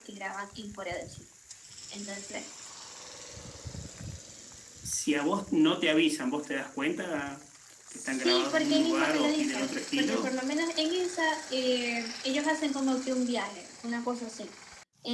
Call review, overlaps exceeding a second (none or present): present